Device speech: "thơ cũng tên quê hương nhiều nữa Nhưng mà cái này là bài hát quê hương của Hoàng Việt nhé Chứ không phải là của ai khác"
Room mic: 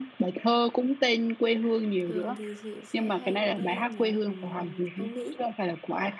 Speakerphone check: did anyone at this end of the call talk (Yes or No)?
Yes